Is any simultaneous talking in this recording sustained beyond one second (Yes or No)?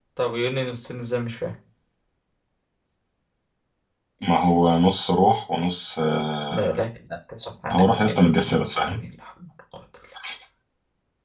Yes